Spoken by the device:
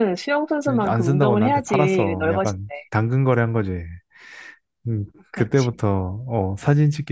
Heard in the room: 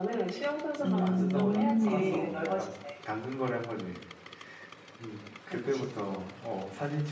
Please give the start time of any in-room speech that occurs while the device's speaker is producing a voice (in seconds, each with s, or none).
0.8 s